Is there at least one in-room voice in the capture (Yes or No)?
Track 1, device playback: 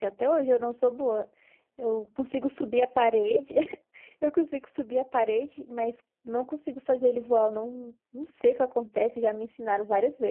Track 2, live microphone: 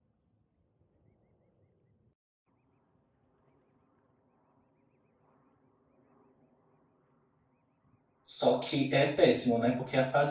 Yes